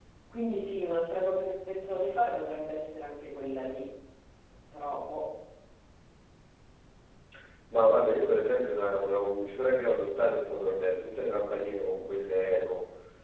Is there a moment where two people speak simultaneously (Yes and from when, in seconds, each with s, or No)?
No